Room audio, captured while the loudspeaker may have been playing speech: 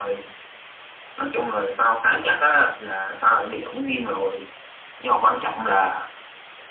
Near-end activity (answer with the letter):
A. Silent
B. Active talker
A